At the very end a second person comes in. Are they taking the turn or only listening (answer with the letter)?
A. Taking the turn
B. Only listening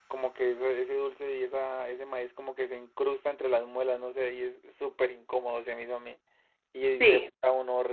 B